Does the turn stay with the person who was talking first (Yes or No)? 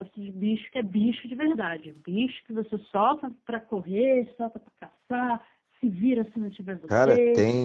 No